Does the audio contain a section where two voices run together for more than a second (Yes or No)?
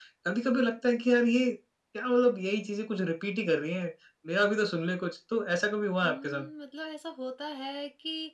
No